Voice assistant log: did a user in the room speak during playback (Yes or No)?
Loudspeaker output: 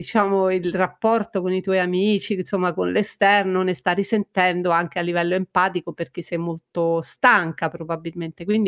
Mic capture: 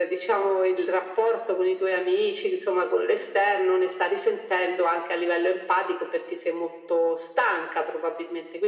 No